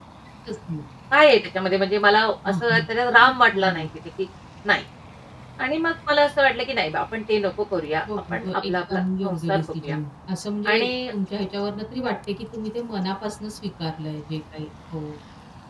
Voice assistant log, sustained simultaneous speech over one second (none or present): present